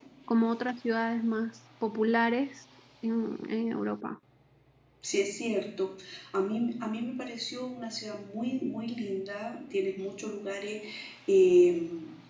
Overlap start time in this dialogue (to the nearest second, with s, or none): none